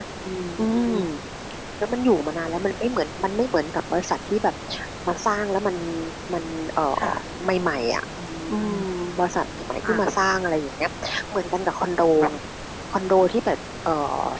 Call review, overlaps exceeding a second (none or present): none